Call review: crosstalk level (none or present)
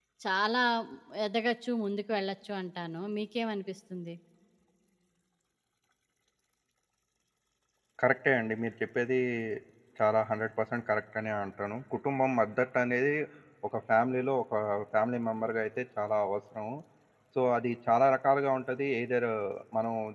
none